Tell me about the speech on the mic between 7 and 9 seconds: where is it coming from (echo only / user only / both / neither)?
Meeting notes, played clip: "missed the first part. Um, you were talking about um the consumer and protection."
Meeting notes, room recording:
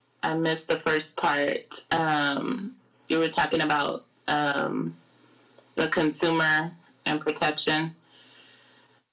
echo only